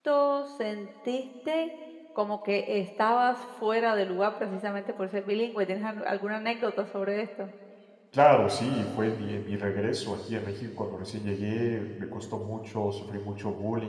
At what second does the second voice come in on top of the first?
none

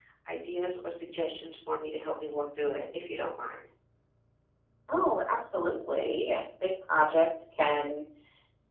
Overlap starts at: none

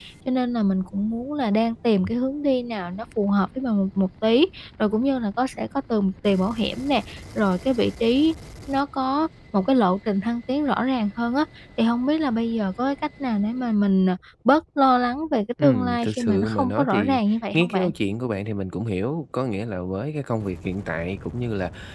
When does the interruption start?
15.6 s

